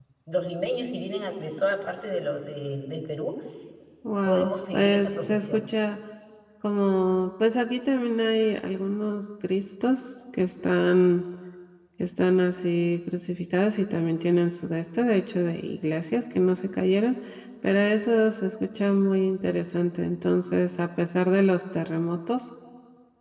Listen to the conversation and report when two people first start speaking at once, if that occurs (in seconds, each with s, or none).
4.2 s